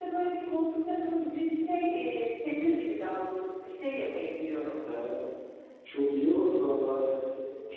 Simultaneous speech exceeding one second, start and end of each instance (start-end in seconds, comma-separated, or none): none